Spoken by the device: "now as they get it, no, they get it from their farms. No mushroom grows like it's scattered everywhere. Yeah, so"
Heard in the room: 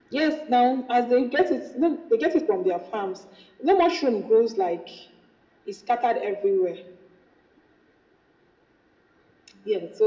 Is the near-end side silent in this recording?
Yes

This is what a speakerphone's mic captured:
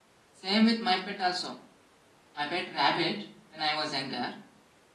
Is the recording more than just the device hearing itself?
No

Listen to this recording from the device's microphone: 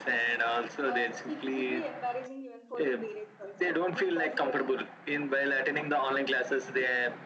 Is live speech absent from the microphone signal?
No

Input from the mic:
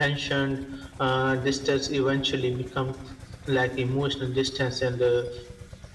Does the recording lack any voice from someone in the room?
Yes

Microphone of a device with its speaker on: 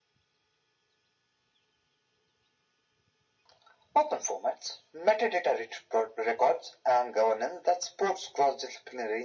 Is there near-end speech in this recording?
No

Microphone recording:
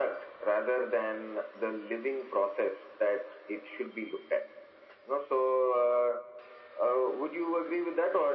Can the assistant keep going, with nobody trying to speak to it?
Yes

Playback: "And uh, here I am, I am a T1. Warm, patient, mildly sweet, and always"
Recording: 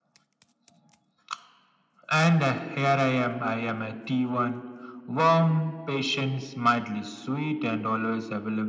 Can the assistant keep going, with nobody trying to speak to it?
Yes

